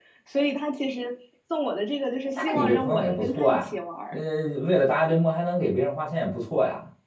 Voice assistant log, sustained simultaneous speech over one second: present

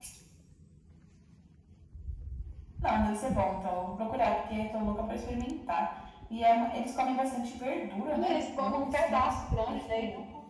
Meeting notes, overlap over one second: present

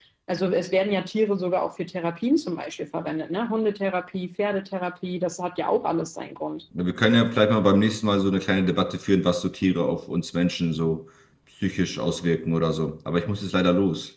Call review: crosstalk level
none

